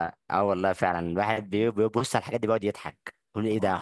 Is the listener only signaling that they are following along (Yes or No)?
Yes